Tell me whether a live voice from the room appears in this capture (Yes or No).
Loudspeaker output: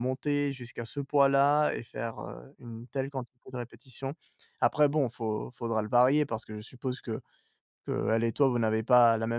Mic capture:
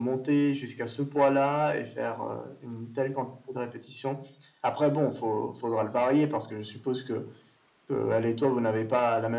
No